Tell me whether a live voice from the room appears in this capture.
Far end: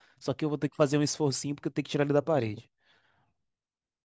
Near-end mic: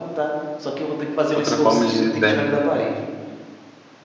Yes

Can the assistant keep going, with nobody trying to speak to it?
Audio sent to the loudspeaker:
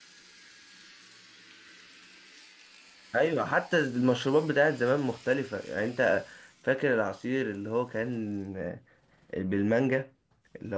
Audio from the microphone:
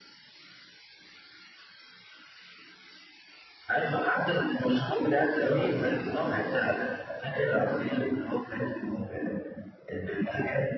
No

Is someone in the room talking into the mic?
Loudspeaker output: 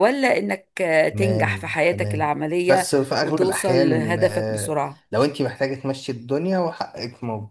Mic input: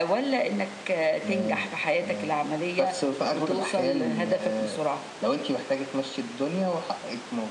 No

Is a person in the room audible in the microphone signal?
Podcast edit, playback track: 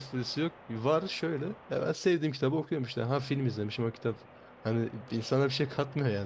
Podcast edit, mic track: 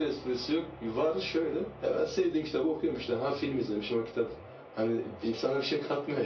No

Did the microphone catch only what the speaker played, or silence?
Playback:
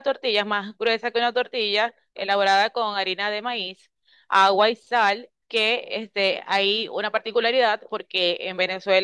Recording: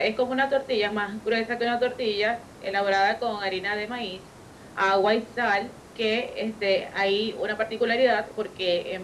Yes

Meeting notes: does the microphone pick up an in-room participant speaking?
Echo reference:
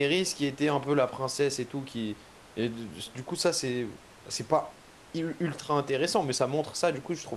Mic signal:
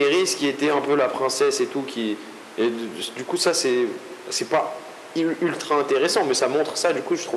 No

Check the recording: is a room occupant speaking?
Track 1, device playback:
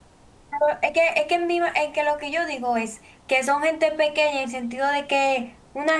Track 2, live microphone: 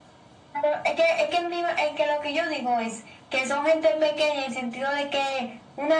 No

